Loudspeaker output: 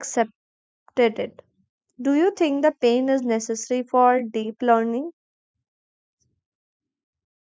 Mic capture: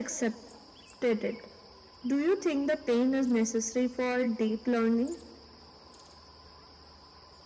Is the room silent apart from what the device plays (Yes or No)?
Yes